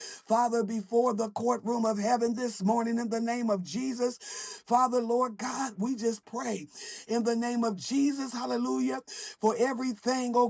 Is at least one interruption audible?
No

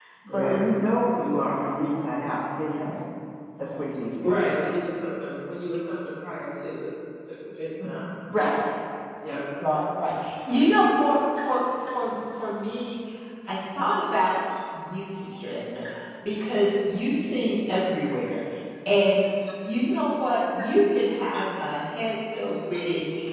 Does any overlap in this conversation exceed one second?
No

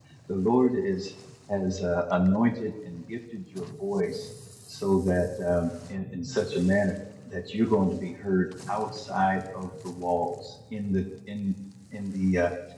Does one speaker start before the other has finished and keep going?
No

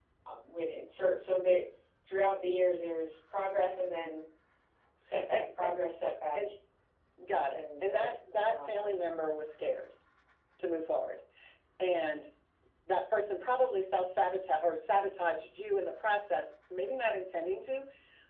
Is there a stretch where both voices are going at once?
Yes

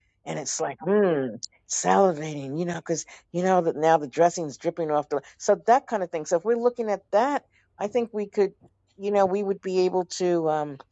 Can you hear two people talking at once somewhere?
No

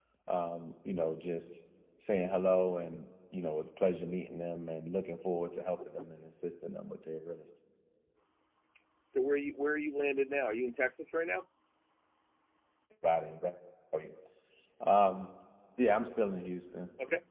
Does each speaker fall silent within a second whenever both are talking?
Yes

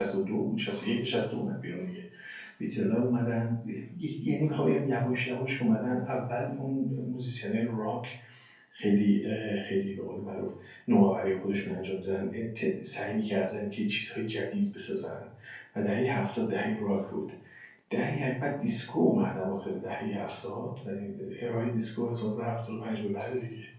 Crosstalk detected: No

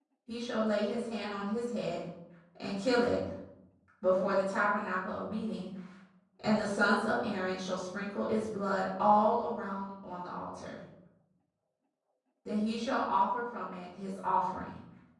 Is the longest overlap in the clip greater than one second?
No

